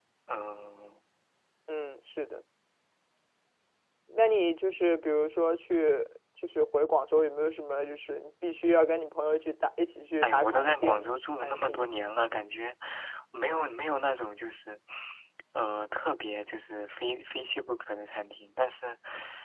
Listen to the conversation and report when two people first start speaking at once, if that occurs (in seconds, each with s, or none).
10.2 s